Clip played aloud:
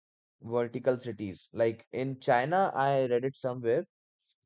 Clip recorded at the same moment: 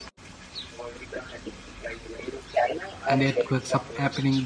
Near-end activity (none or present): present